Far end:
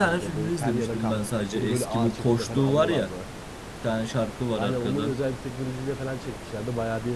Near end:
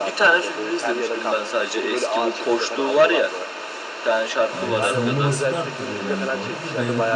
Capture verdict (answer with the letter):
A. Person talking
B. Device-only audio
A